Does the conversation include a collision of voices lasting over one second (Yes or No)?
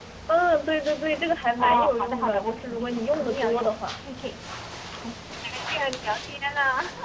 Yes